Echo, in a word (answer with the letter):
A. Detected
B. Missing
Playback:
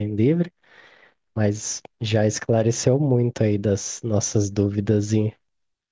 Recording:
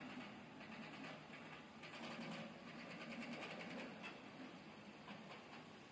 B